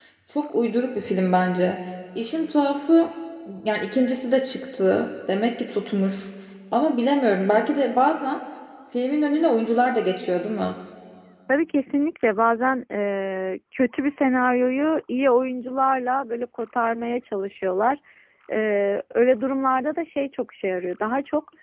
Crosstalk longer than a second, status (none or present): none